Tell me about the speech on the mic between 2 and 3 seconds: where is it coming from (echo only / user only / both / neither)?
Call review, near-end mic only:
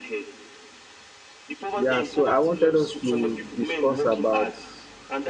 both